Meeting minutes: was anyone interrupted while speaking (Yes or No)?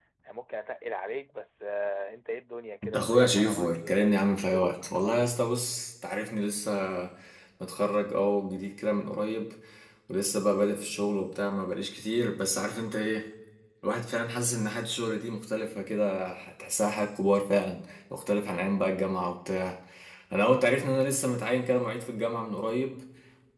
Yes